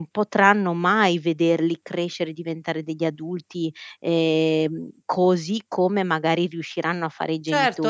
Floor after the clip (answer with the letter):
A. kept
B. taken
B